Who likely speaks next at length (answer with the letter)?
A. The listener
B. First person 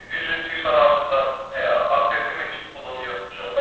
B